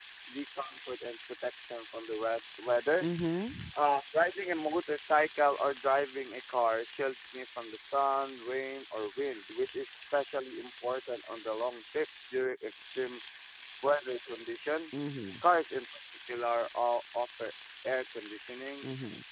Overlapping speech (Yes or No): No